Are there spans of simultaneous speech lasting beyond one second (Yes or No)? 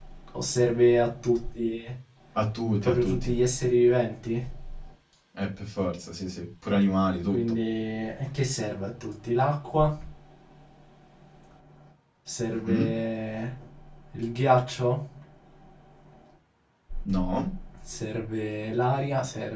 No